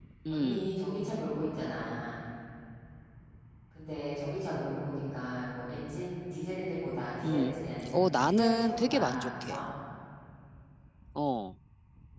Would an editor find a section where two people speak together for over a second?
Yes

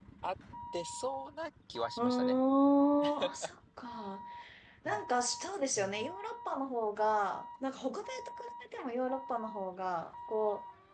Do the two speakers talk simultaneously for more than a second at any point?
No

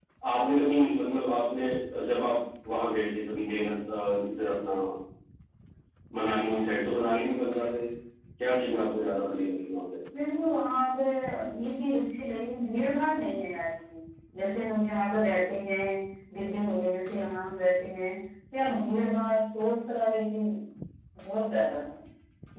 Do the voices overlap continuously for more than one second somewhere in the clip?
No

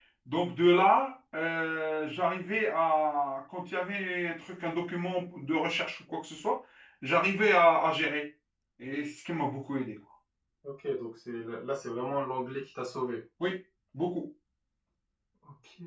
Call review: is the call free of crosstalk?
Yes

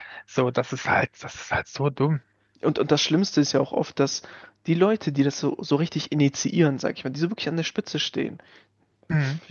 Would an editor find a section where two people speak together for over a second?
No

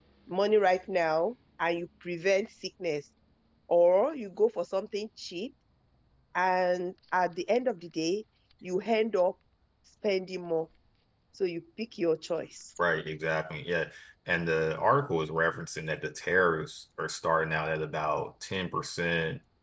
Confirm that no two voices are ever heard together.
Yes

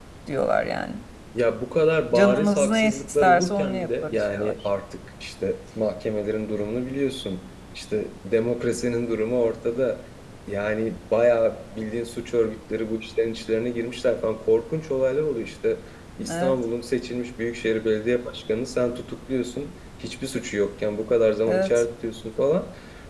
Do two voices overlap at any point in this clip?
Yes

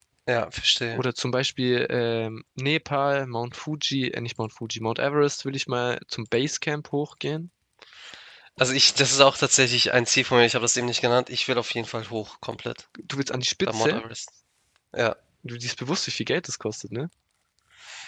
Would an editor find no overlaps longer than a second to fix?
Yes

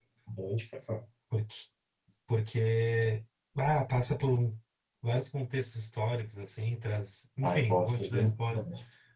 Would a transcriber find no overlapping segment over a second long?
No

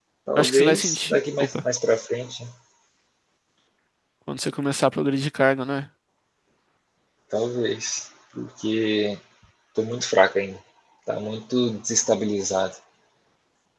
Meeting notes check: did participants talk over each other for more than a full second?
Yes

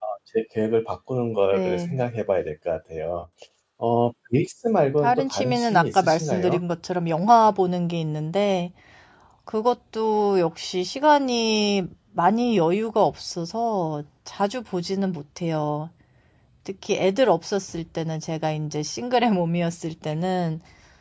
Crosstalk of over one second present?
Yes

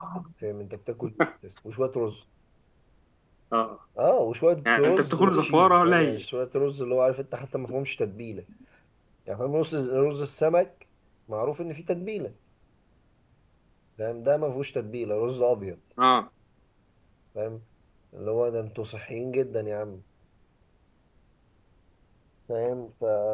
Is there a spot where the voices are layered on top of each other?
Yes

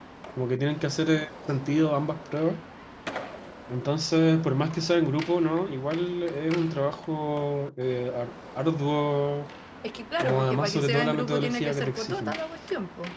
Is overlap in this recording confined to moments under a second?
No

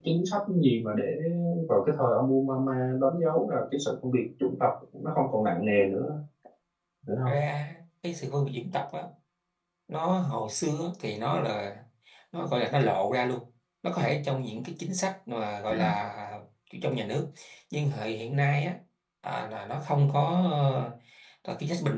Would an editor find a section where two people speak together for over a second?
No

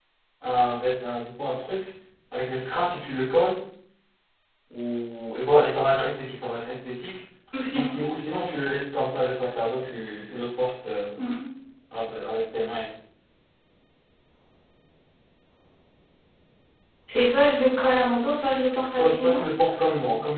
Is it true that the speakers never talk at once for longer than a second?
Yes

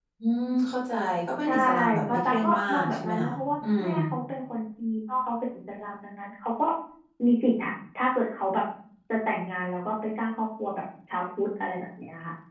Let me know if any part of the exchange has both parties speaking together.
Yes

